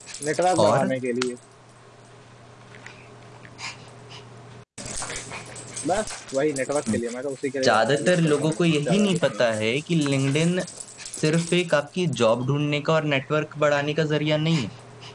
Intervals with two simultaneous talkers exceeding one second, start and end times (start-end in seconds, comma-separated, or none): 7.6-9.4